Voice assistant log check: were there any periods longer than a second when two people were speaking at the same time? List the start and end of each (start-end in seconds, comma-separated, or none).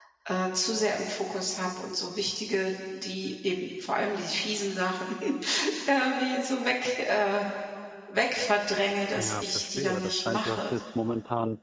9.2-10.8